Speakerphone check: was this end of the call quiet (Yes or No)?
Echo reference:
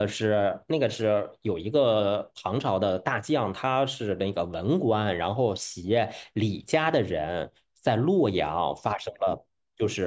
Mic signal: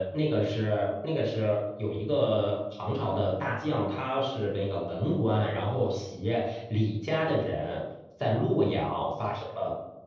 Yes